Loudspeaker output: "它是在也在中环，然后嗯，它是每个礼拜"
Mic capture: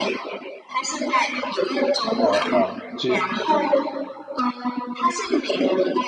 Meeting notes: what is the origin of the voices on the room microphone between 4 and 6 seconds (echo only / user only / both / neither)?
echo only